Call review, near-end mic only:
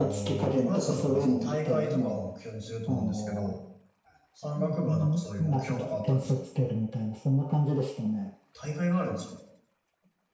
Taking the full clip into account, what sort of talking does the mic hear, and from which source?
both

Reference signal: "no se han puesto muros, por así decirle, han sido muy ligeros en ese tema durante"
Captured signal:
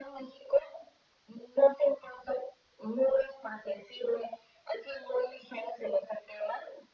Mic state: echo only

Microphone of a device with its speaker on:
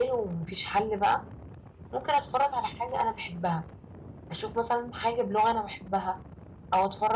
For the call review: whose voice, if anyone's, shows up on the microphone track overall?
echo only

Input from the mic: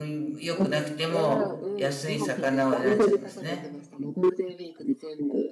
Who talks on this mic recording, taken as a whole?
both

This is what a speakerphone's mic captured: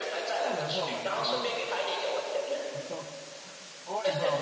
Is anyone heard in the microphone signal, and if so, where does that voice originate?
both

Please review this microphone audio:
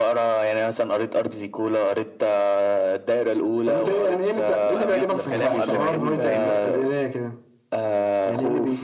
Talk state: both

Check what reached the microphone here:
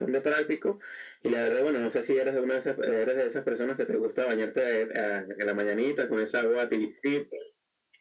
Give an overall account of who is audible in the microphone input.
echo only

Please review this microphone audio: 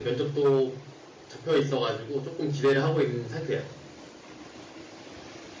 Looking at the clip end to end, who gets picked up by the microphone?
user only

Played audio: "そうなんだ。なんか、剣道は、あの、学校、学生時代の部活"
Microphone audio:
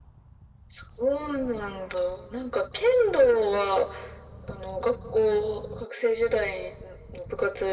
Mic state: echo only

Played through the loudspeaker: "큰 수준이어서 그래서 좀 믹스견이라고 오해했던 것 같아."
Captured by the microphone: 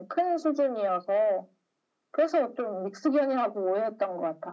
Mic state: echo only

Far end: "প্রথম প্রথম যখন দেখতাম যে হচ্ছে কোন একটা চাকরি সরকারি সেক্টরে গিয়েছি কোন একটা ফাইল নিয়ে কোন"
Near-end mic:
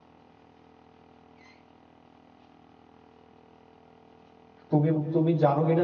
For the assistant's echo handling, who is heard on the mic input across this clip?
user only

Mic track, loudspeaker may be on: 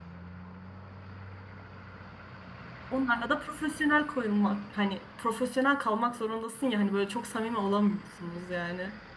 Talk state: user only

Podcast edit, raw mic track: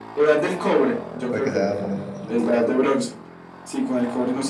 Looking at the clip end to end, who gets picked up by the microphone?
both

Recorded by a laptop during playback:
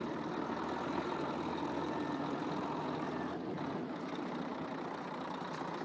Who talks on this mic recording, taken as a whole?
neither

